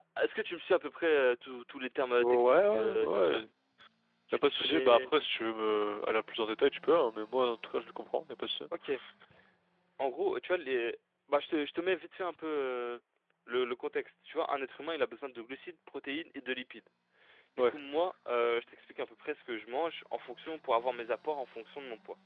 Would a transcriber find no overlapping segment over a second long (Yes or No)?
No